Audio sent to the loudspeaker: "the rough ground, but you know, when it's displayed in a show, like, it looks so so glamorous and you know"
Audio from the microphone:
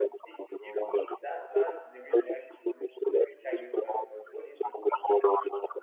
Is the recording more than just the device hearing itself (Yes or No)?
Yes